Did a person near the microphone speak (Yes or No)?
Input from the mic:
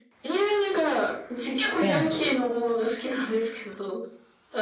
Yes